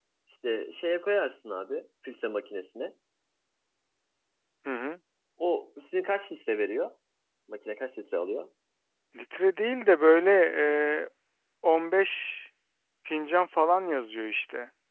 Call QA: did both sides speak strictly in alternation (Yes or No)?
Yes